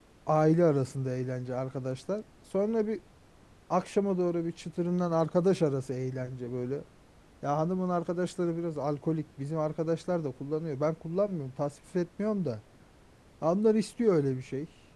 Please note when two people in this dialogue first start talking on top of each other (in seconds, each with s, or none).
none